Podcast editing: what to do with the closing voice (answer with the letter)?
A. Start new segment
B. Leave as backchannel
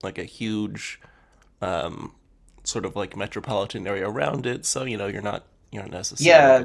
A